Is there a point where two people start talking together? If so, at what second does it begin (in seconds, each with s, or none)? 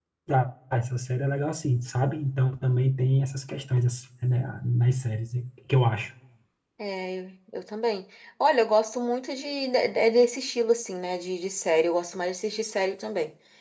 none